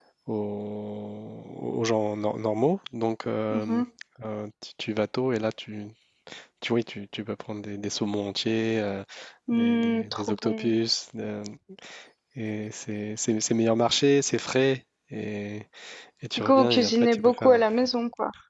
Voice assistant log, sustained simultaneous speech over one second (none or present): present